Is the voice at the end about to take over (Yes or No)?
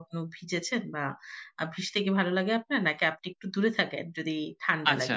Yes